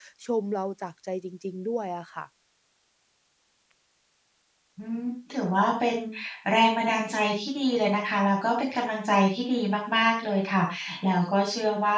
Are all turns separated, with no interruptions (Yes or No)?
Yes